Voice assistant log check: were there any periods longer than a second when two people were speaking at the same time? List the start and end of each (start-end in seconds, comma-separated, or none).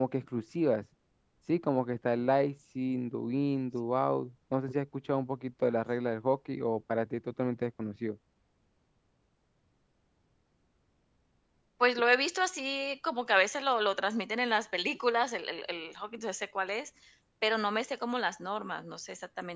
none